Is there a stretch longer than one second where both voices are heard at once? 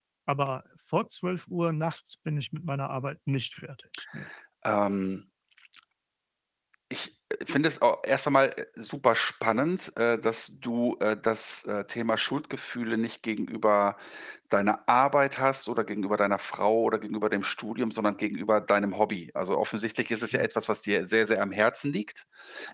No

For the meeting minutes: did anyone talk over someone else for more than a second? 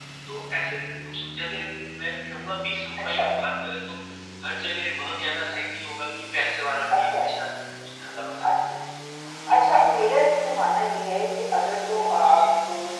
No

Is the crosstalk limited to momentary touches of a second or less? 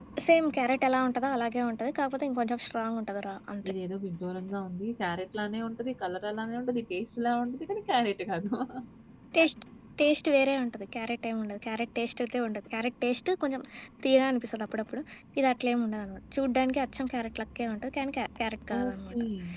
Yes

